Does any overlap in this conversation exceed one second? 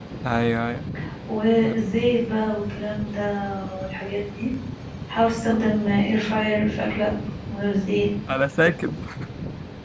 No

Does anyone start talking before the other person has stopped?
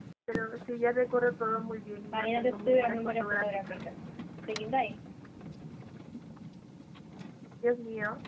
Yes, from 2.1 s

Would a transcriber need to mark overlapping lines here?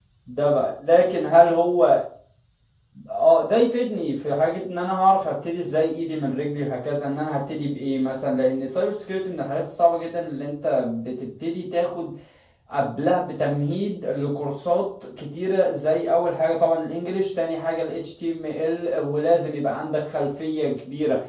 No

